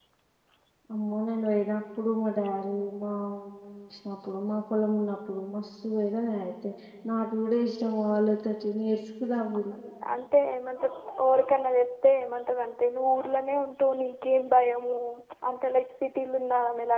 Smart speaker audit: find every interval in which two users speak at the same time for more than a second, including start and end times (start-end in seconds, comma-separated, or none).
none